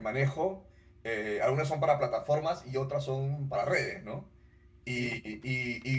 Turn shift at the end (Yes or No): No